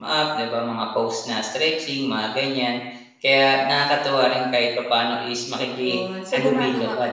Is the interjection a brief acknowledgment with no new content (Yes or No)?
No